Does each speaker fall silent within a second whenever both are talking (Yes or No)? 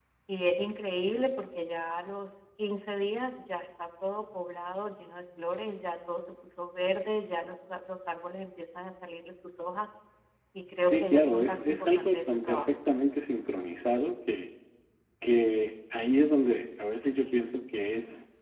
No